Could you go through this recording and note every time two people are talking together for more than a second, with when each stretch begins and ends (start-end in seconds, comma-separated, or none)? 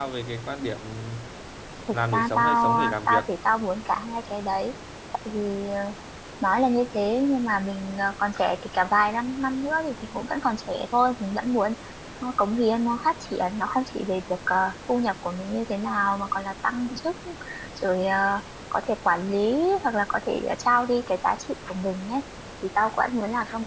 1.9-3.2